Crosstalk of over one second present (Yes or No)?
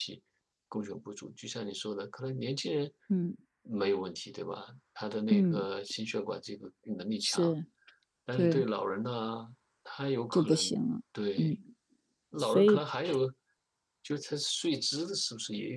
No